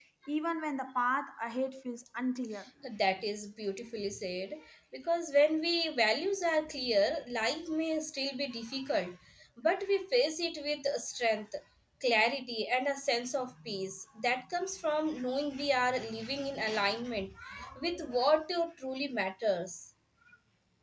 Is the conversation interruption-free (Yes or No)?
Yes